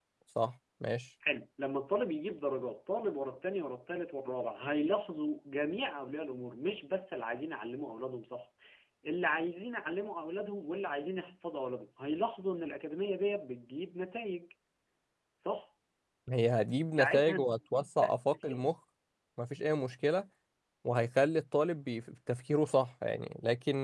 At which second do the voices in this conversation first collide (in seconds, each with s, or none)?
16.9 s